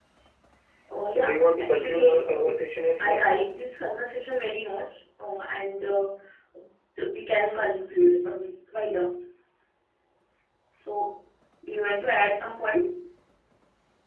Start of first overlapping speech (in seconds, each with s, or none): 1.1 s